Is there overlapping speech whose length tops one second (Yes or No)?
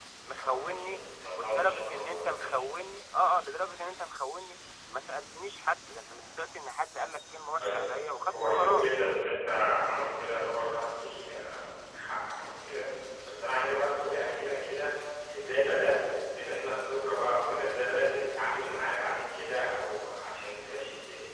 Yes